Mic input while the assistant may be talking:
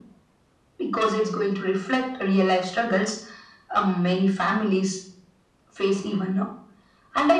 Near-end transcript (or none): none